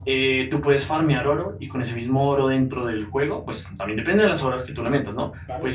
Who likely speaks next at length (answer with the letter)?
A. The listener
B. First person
B